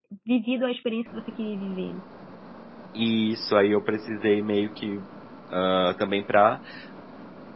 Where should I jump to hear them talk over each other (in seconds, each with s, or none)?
none